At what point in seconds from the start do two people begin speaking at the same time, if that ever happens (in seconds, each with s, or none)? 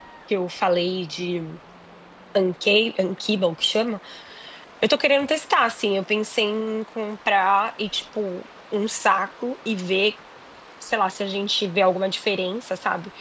none